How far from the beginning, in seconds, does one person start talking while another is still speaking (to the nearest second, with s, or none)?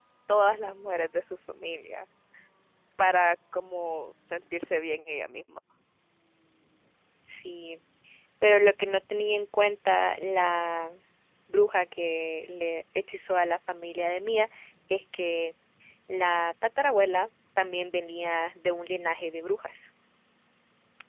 none